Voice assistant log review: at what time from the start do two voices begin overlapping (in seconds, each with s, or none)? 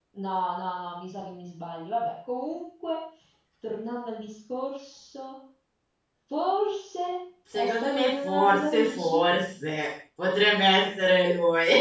7.5 s